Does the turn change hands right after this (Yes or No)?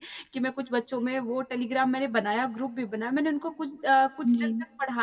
No